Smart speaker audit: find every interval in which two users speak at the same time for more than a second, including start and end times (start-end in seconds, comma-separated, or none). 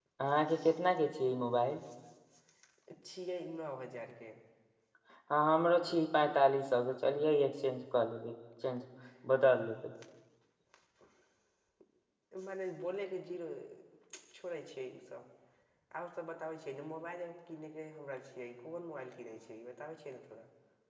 none